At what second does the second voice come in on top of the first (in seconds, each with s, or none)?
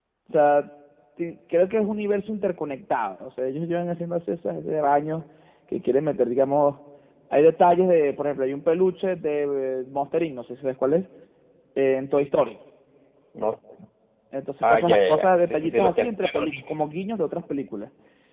14.6 s